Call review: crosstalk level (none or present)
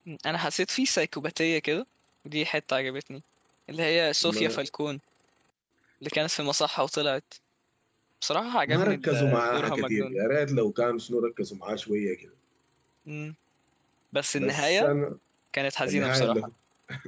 present